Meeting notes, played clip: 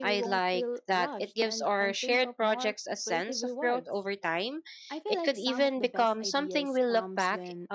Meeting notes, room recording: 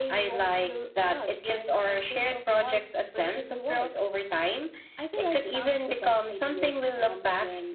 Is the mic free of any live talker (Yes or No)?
Yes